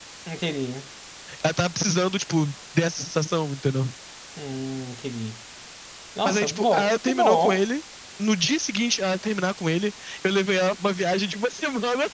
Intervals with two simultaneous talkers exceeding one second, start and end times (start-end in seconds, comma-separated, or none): 6.2-7.6